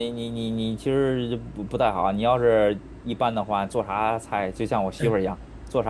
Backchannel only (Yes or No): Yes